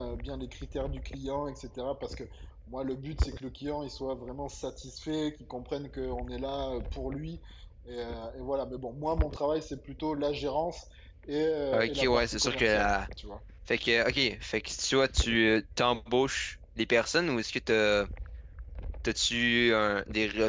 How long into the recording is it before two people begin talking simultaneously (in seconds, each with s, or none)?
11.7 s